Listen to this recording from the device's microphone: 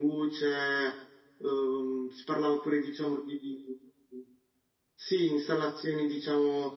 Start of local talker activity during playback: none

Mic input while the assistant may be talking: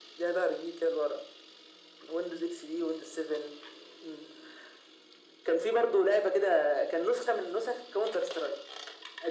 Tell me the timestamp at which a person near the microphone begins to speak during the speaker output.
none

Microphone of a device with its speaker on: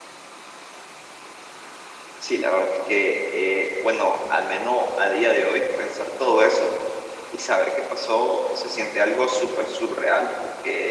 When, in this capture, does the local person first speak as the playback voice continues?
none

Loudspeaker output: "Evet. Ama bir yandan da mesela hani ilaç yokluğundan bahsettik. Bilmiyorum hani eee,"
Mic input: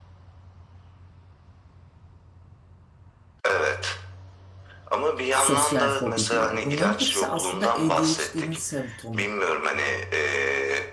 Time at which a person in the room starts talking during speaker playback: 5.3 s

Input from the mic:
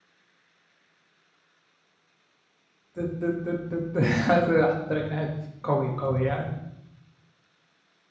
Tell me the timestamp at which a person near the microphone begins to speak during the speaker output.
2.9 s

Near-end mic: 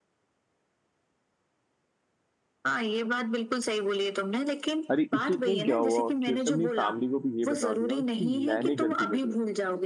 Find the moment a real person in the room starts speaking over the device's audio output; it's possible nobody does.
4.9 s

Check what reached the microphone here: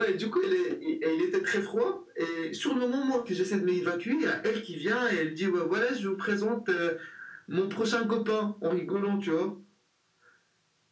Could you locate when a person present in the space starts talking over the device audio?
none

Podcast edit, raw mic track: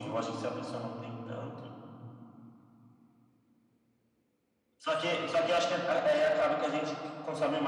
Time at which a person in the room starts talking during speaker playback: none

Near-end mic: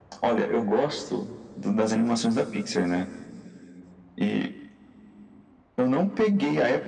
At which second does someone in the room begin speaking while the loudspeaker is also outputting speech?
none

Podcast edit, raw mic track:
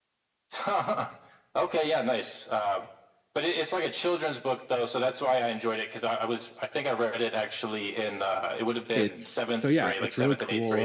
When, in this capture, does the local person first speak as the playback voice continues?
8.9 s

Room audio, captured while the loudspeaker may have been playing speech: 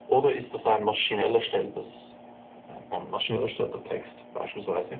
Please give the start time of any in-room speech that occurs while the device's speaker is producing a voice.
none

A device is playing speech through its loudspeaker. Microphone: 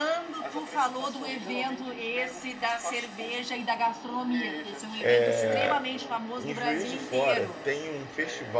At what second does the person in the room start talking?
5.0 s

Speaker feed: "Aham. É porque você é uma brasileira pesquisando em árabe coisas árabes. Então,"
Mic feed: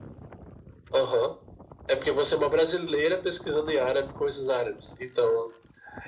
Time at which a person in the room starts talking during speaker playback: none

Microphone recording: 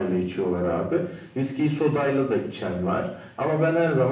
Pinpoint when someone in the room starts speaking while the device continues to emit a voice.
none

